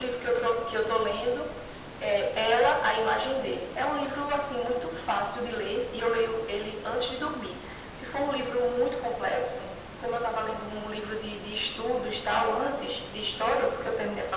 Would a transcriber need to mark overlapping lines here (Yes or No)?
No